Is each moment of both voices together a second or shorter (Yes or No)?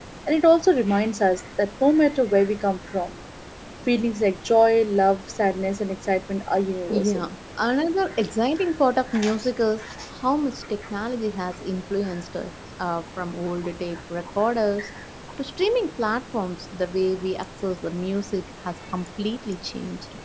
Yes